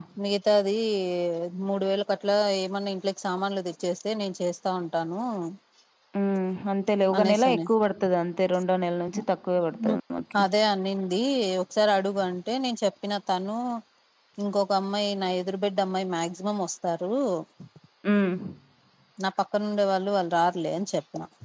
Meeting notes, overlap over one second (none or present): none